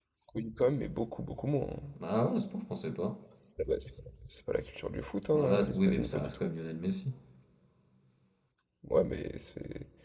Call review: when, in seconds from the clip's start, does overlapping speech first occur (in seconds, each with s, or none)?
5.3 s